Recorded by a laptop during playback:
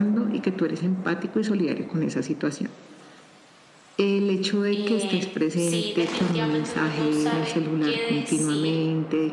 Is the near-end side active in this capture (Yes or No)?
Yes